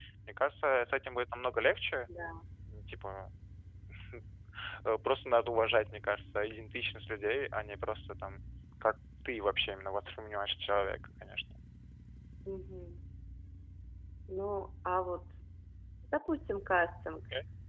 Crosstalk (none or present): none